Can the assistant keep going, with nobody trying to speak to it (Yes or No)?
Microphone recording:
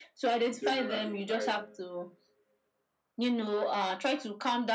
No